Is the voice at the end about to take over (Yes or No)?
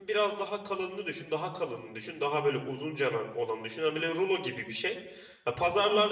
No